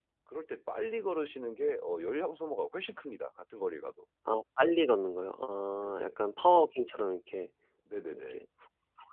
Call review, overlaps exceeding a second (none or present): none